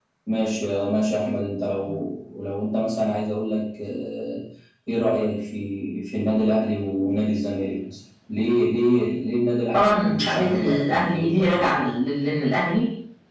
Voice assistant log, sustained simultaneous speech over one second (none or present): present